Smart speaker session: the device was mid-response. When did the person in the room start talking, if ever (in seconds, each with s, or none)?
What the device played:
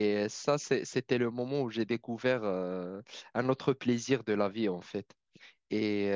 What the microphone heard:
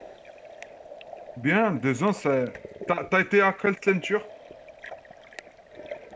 1.4 s